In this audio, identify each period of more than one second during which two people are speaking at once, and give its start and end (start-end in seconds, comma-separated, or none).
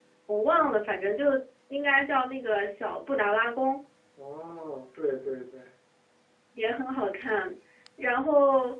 none